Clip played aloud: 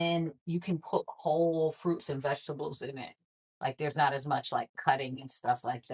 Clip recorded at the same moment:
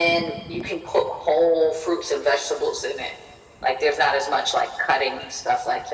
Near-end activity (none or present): none